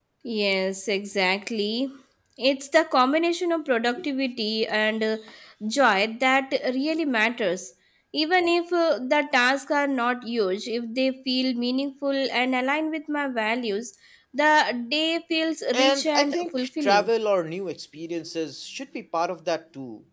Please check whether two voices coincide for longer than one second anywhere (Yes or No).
Yes